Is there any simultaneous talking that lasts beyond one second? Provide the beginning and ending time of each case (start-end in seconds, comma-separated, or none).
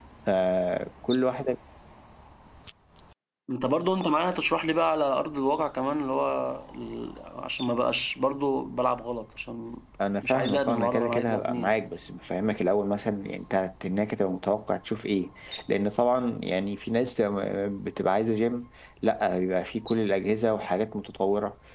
10.2-11.8